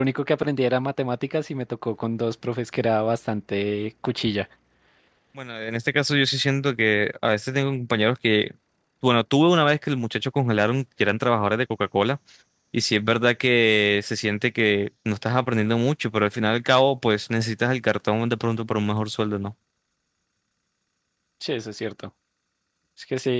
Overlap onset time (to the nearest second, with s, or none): none